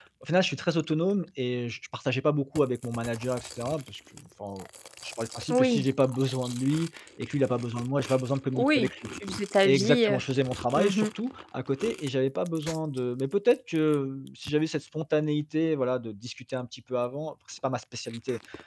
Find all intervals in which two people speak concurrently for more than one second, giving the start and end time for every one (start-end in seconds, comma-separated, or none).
none